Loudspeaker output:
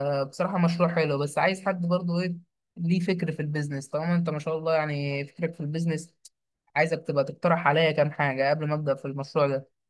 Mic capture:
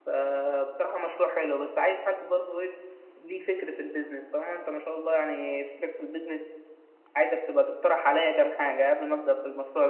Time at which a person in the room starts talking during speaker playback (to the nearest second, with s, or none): none